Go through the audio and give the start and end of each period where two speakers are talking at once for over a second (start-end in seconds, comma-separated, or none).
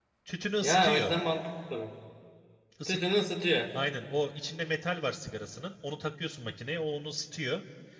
none